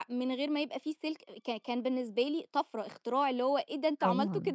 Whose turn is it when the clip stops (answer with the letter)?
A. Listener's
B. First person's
A